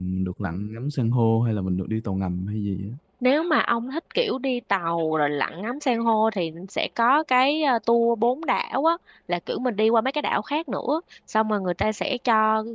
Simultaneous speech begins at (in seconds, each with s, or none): none